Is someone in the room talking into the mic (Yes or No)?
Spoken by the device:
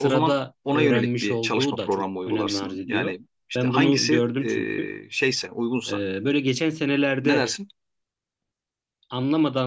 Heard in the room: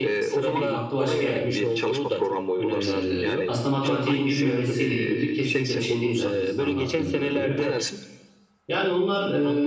Yes